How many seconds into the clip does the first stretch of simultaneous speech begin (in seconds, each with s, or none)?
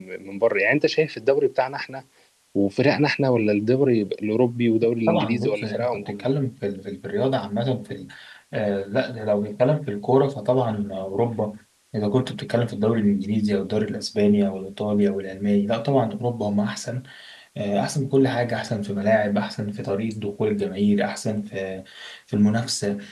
5.1 s